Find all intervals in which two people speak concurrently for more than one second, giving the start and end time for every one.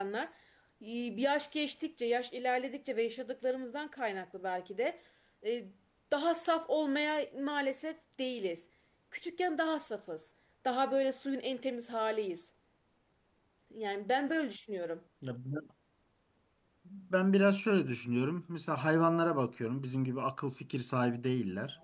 none

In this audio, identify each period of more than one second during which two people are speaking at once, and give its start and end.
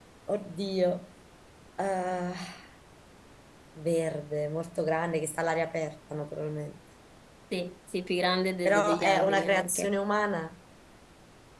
8.7-9.9

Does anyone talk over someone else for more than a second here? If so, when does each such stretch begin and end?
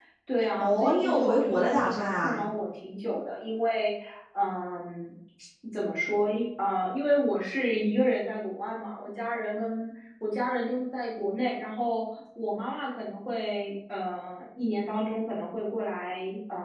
0.6-2.4

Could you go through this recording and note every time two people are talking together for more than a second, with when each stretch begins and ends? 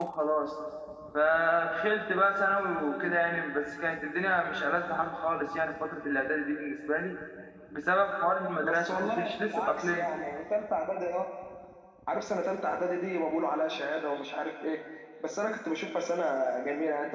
8.6-10.1

